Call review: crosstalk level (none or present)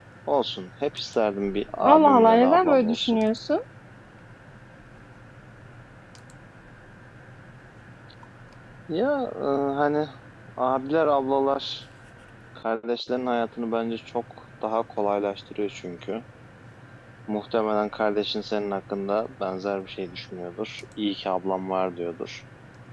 present